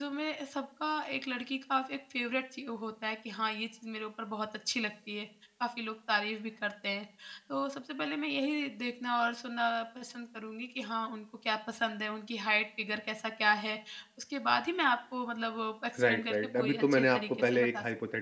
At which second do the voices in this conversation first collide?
16.0 s

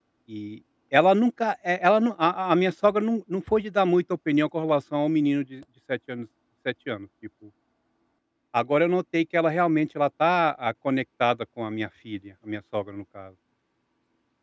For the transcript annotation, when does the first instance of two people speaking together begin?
none

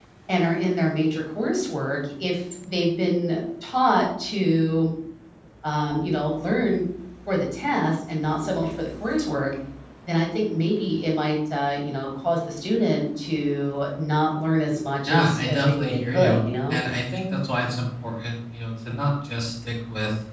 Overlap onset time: 15.1 s

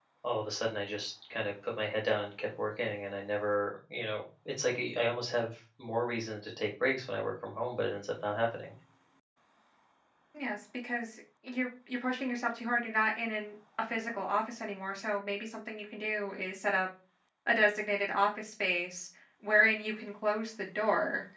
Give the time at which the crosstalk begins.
none

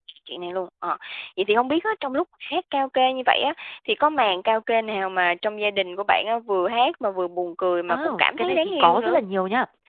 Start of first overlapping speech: 7.9 s

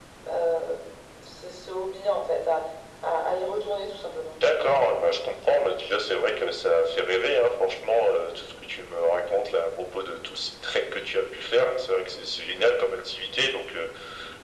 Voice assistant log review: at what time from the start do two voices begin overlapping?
none

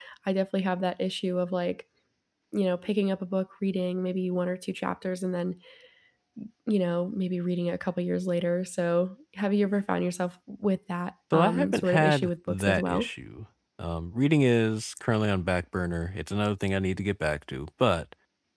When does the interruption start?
11.3 s

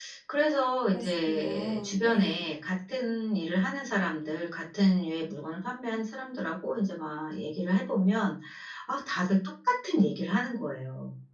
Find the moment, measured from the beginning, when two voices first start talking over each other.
0.9 s

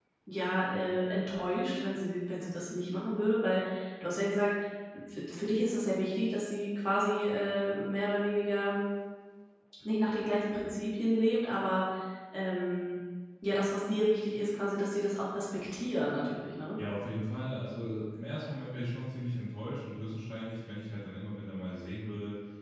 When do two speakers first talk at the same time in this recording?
none

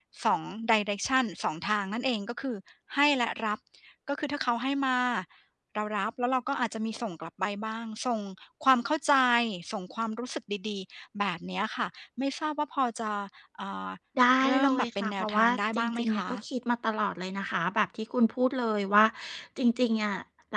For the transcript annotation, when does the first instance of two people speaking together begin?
14.4 s

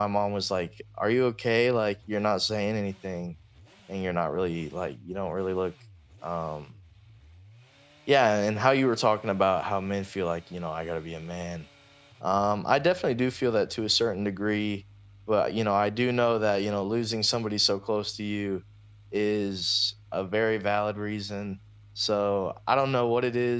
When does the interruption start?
none

